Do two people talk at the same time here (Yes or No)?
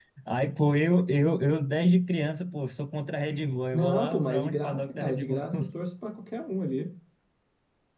Yes